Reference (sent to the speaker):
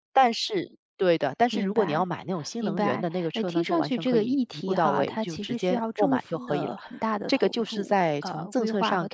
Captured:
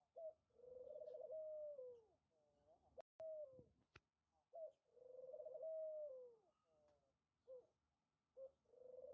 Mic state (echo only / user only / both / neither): neither